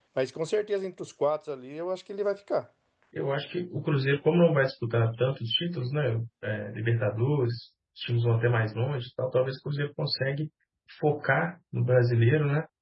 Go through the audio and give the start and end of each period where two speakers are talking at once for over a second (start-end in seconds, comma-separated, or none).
none